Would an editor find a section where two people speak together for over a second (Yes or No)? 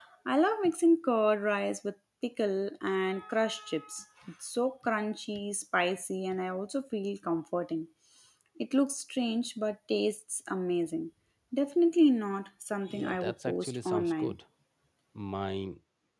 Yes